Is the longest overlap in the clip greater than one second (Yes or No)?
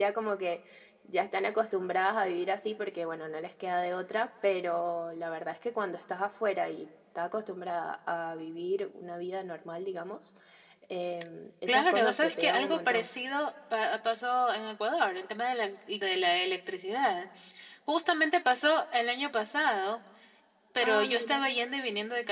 Yes